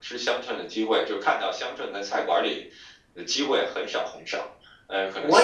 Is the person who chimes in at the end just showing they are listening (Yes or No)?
No